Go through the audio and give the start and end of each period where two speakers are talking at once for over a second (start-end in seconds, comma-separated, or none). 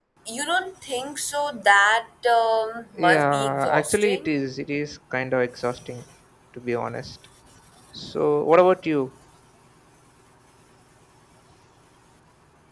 3.0-4.3